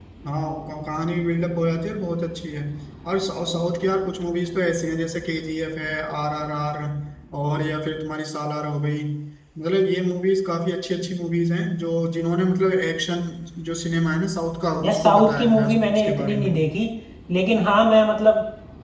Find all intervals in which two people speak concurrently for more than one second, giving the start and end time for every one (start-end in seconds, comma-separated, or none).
14.8-16.5